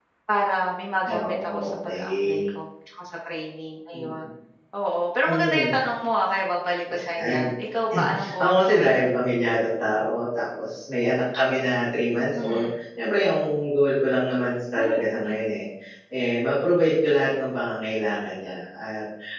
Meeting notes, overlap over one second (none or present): present